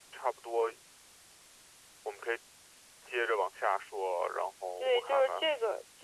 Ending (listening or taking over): taking over